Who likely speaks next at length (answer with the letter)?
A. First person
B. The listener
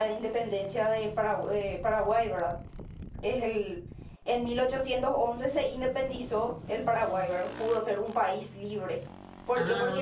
A